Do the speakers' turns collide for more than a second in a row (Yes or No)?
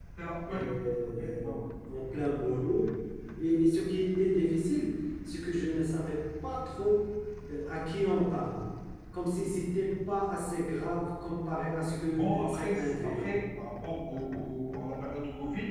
Yes